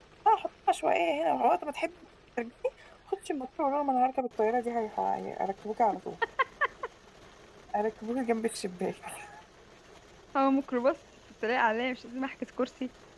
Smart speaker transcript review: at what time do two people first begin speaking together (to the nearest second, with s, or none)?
none